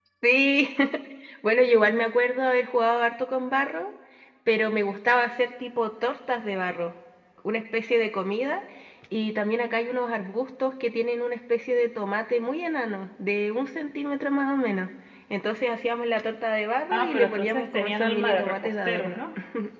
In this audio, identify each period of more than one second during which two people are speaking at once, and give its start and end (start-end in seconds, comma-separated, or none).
16.9-19.2